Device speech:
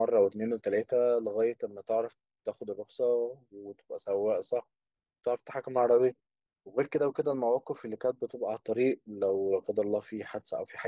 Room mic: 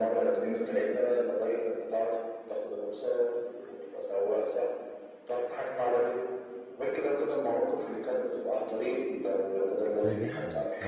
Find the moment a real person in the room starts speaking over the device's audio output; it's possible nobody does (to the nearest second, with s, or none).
10 s